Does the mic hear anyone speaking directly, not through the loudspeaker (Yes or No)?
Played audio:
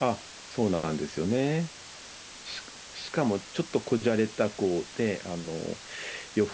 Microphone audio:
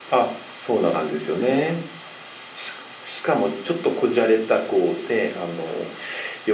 No